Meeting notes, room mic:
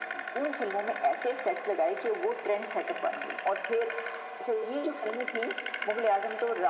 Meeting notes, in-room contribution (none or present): none